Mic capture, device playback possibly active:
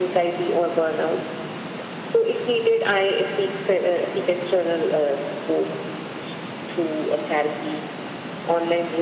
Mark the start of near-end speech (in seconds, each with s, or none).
none